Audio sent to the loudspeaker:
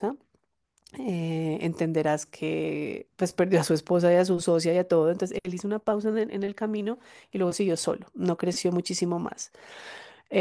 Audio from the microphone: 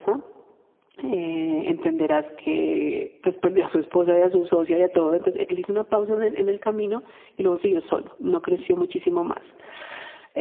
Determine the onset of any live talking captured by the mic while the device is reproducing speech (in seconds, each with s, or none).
none